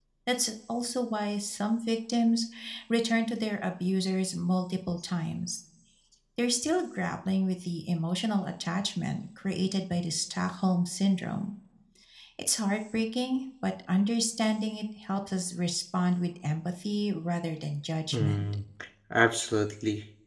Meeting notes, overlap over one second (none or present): none